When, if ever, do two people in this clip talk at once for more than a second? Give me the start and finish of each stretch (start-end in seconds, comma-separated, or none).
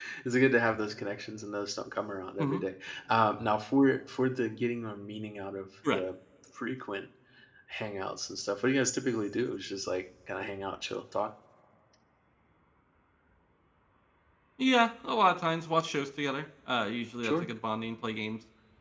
none